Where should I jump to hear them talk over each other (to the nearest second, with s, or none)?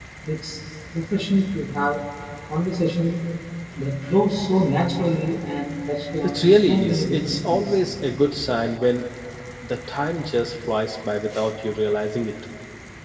6 s